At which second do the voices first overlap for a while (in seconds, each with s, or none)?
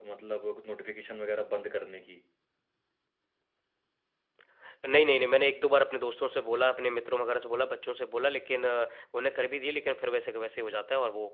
none